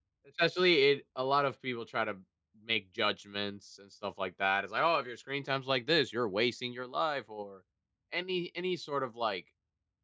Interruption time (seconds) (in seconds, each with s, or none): none